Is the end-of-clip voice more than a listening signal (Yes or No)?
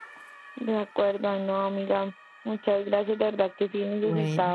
No